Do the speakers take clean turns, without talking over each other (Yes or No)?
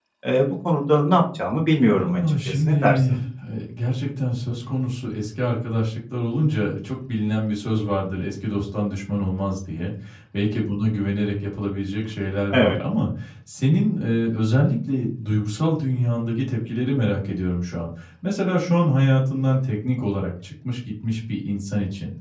No